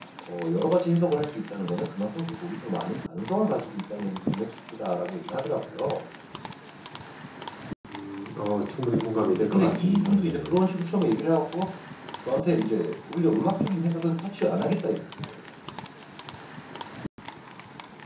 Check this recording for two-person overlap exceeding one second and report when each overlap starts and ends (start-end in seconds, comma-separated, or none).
9.2-10.6